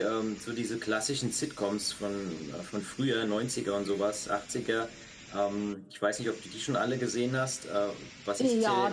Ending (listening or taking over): taking over